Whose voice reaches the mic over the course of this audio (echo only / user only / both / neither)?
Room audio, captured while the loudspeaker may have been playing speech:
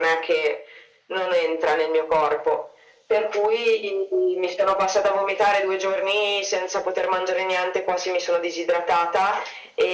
echo only